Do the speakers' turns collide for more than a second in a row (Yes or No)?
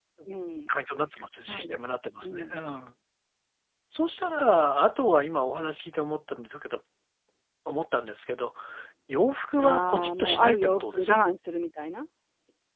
Yes